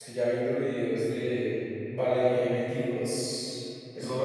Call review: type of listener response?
taking over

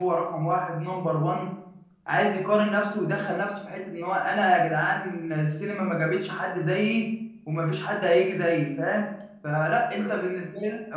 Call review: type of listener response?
listening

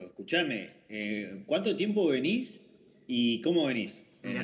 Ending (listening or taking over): taking over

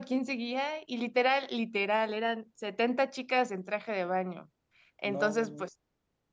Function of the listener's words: listening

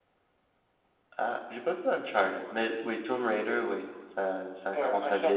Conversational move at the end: taking over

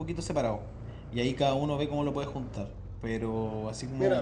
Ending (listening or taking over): taking over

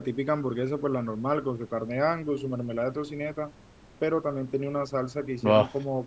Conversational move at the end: listening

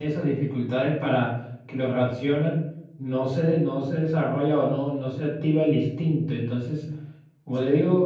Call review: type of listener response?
listening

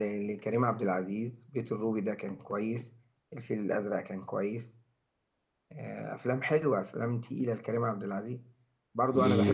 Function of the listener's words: listening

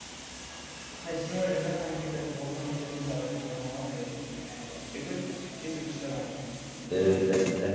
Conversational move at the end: taking over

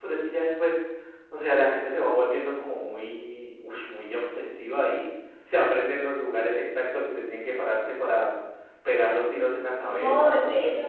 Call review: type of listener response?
taking over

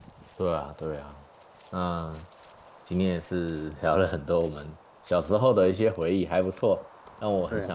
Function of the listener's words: listening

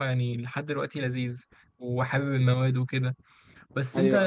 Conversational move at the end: listening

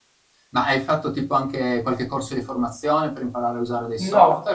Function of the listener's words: taking over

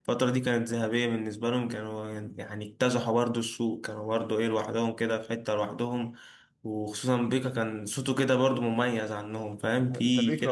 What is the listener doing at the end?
taking over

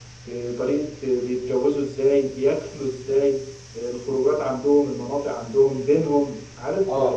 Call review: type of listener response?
listening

